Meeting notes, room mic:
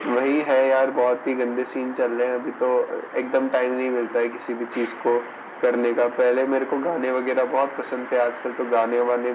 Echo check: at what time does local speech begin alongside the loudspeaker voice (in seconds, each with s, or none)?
none